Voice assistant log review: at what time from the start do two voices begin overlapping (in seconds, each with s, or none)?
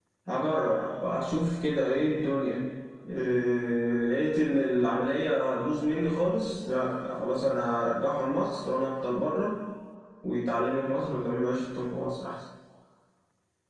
none